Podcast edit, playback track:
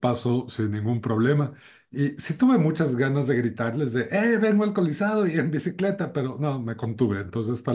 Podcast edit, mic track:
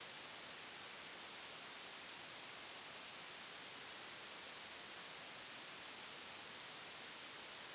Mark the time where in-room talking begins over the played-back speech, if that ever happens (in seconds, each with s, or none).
none